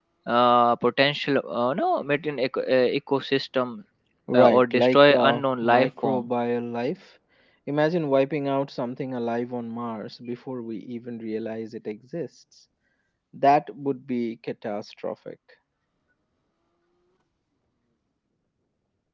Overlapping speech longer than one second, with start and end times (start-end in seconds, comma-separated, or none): 4.3-6.3